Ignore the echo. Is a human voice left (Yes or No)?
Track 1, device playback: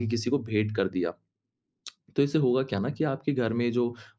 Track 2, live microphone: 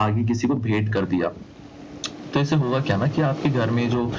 No